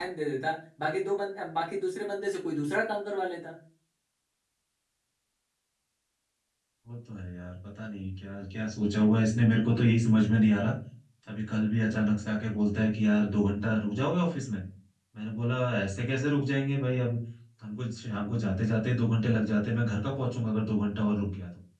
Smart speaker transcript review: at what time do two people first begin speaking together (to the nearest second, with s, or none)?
none